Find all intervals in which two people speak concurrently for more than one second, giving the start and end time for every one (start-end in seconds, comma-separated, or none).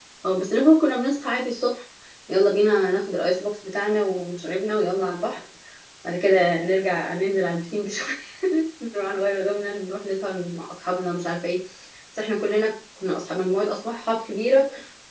none